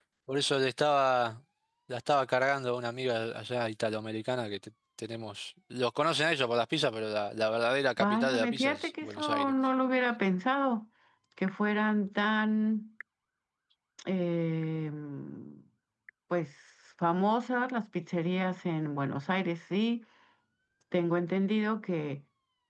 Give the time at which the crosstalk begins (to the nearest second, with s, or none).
8 s